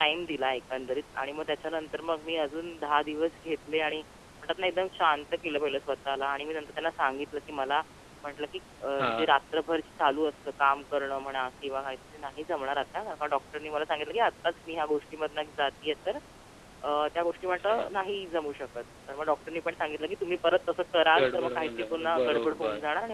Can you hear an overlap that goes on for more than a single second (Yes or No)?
Yes